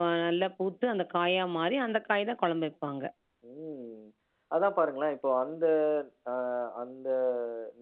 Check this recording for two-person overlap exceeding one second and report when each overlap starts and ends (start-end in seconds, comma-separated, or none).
none